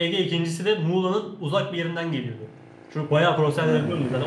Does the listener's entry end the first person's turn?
No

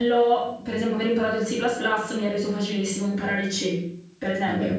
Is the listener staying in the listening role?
Yes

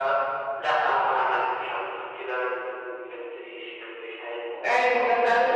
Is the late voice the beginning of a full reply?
Yes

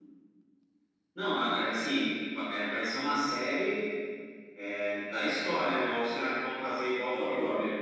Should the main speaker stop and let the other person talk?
Yes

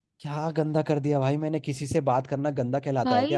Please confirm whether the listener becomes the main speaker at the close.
Yes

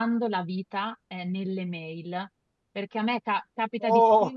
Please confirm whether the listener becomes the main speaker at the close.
No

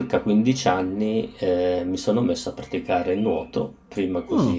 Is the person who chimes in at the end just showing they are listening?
Yes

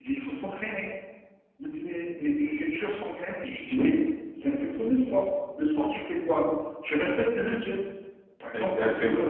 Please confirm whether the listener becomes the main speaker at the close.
No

